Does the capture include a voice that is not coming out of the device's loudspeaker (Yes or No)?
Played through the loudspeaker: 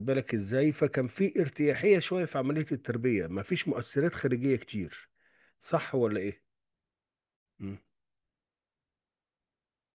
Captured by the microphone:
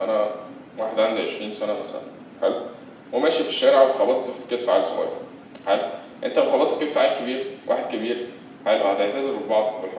Yes